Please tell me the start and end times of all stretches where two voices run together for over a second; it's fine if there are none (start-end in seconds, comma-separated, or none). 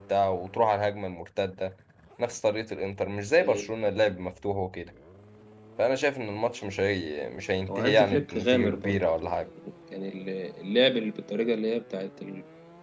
7.7-9.4